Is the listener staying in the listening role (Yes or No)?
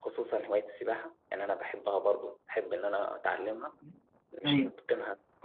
Yes